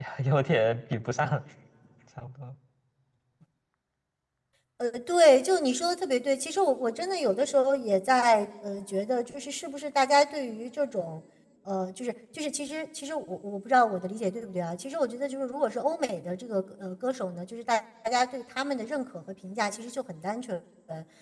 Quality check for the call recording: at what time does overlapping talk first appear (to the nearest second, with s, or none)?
none